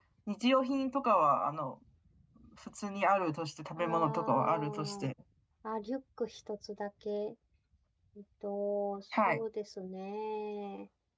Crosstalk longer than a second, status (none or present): present